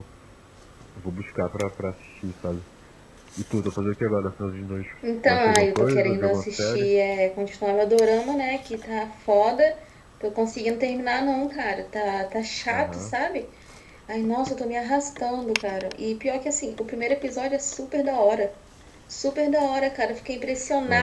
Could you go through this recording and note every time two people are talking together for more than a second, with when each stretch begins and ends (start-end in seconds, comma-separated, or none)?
5.3-6.9